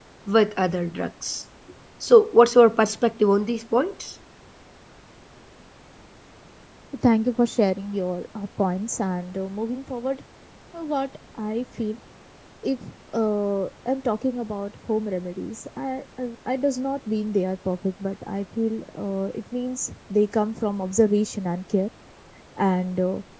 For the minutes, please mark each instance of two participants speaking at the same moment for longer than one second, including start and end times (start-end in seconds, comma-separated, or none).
none